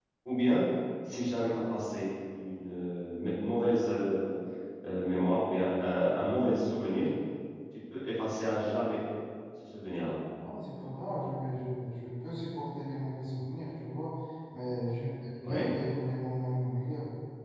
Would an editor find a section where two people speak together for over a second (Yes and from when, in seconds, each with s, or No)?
No